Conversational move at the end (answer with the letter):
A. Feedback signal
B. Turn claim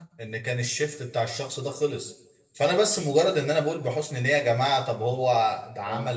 A